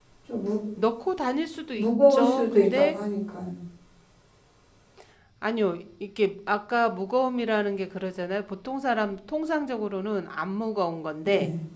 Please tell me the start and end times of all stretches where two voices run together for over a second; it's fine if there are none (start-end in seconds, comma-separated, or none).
1.8-3.0